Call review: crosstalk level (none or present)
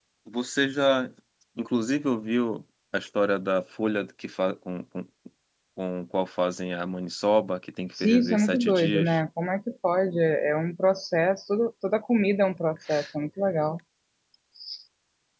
present